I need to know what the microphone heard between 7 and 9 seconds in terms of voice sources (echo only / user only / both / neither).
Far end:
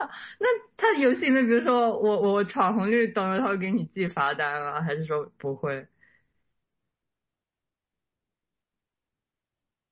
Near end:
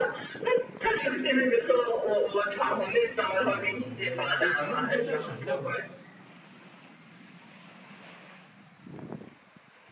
neither